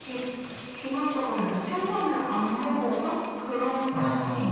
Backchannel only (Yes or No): Yes